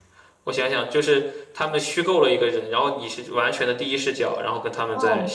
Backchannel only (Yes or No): No